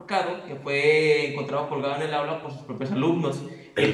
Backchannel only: Yes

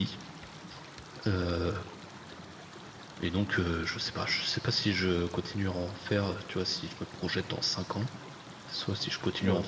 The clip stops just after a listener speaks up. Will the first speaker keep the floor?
Yes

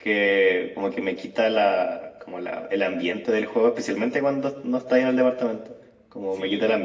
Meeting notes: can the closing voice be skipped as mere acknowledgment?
Yes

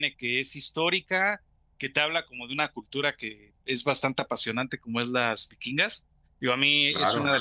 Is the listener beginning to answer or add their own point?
No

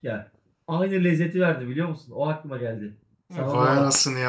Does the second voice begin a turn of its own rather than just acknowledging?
Yes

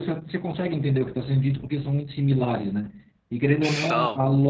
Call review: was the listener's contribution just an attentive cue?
Yes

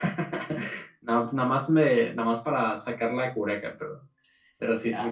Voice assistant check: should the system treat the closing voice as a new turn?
Yes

